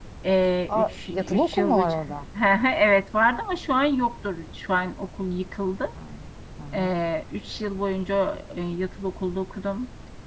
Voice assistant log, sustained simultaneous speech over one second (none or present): present